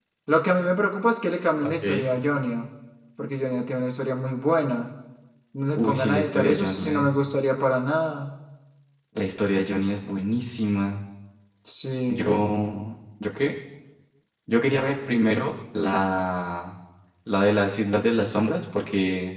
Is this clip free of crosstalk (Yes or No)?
No